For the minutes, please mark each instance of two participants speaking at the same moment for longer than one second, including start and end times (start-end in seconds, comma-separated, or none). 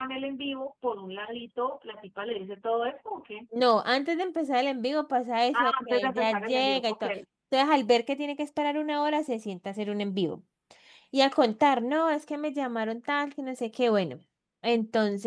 5.5-7.0